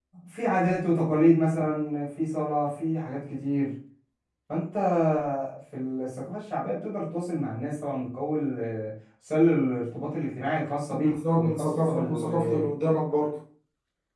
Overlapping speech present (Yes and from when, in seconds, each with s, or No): Yes, from 10.9 s